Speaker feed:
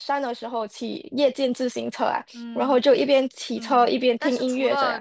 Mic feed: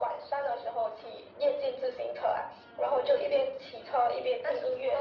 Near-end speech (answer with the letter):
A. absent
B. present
A